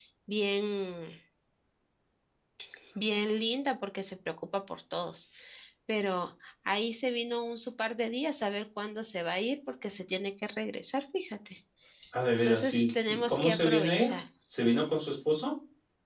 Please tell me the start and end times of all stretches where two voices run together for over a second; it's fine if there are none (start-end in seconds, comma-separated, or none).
12.4-14.2